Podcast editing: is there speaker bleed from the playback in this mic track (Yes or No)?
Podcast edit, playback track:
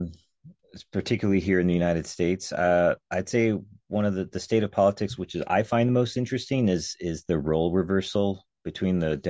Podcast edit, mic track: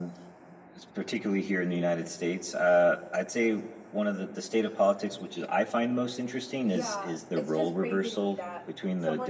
Yes